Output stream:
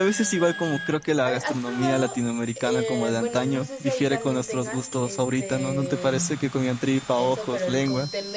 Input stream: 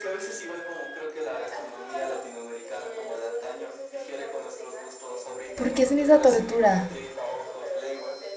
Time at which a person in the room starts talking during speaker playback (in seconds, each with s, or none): 5.5 s